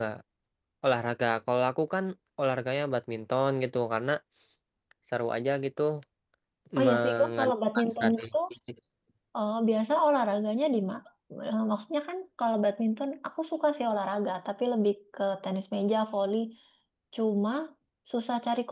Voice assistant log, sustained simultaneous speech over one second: present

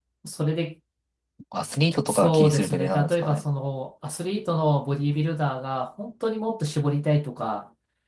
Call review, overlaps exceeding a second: present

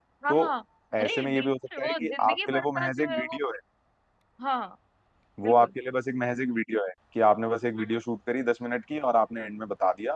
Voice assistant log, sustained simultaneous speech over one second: present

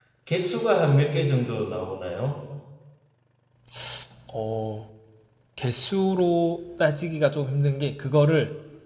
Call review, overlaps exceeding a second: none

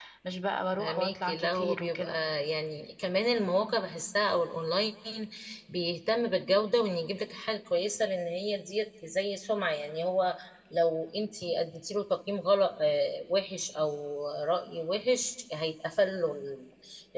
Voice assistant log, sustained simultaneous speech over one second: present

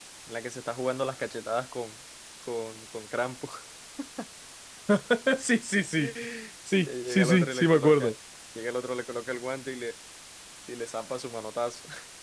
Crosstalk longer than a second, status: present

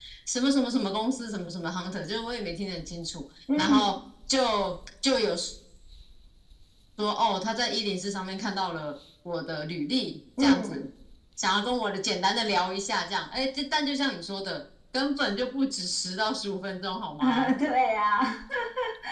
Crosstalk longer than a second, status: none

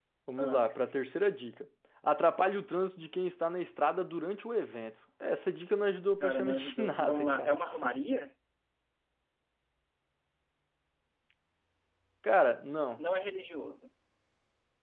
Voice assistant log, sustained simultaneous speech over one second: present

